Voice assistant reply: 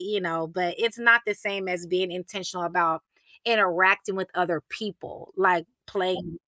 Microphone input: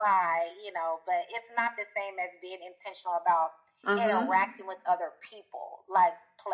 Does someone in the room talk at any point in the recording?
Yes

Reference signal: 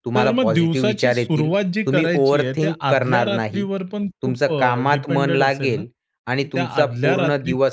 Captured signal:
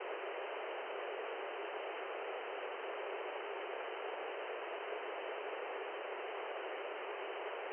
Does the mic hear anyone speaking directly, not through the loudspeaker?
No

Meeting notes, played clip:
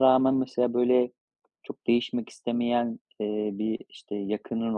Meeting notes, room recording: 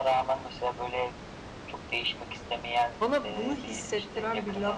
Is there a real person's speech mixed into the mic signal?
Yes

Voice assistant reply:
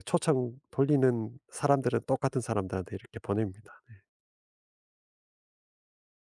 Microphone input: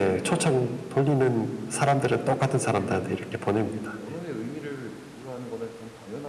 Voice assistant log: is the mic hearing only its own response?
No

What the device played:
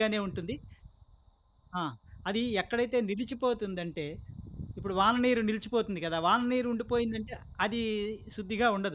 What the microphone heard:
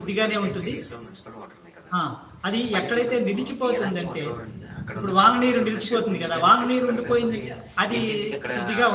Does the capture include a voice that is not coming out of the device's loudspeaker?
Yes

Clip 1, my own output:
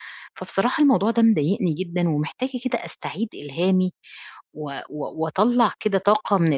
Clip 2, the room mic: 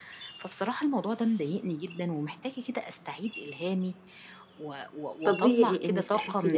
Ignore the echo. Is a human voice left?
Yes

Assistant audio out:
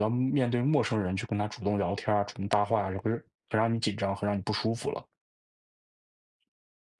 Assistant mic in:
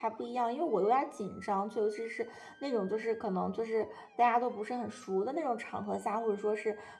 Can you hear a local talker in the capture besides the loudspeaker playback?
Yes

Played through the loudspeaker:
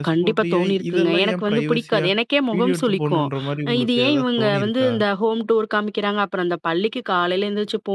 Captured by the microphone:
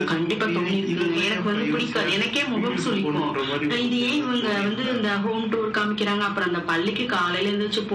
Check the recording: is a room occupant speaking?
No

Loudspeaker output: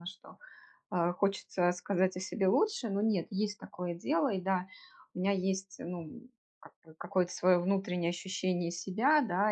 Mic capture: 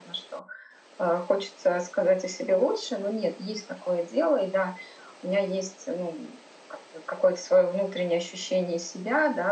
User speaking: No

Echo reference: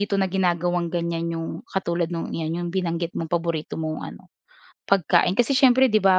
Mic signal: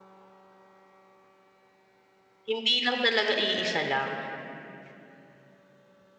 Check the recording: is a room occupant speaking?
Yes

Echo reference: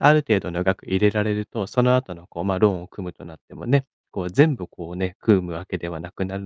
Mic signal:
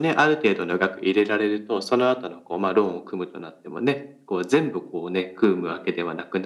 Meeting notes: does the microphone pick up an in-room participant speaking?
No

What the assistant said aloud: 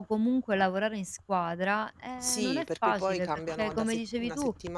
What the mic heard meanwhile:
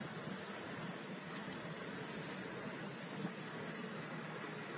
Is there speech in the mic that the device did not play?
No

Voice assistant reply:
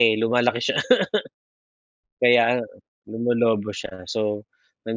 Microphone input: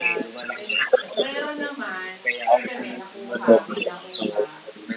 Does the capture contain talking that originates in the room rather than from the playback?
Yes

